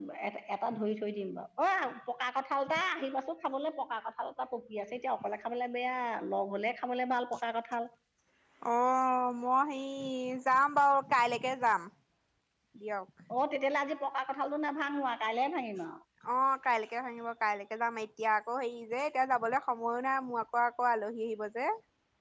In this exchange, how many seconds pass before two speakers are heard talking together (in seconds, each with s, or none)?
none